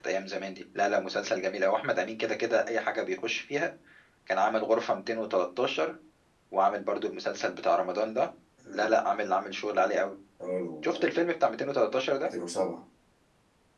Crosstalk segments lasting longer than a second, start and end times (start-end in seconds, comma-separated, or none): none